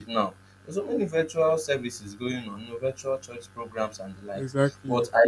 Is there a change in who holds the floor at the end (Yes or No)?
No